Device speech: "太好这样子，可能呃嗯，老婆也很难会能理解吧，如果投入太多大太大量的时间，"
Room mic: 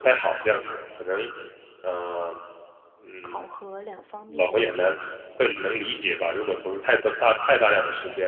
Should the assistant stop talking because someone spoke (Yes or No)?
Yes